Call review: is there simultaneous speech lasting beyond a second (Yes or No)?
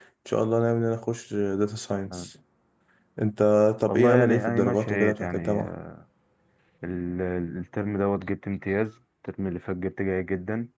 Yes